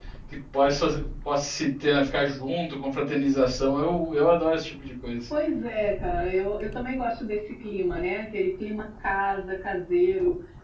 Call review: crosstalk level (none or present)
none